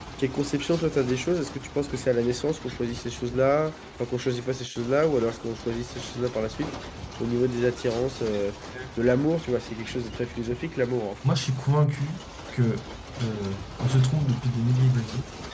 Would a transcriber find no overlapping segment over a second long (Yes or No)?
Yes